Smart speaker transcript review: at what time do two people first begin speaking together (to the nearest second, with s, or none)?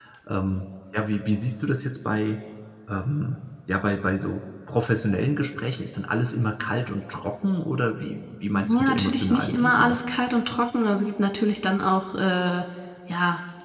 9 s